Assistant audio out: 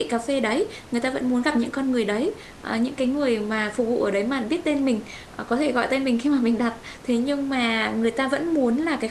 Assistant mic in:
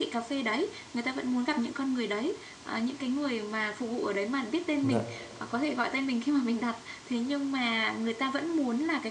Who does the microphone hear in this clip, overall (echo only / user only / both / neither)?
both